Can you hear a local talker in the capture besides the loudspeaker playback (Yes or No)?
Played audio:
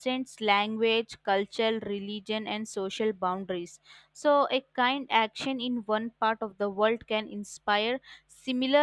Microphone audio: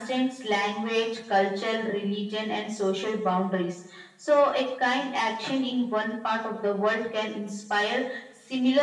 No